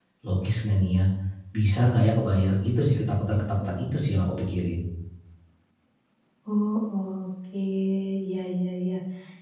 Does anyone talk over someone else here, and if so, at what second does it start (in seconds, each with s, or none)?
none